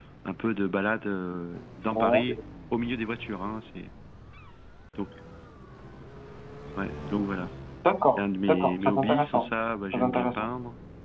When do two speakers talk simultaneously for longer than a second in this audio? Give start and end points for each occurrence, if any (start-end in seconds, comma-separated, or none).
8.2-9.5